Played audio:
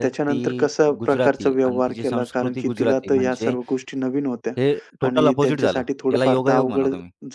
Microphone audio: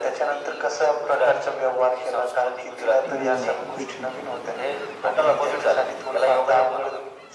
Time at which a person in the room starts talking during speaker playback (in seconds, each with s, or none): 3.1 s